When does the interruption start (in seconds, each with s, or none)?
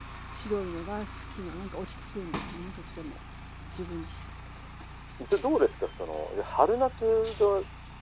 none